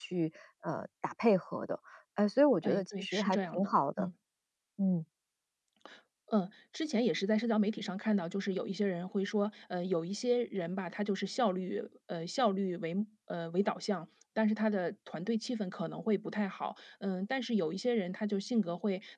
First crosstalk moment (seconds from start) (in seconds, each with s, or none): 2.6 s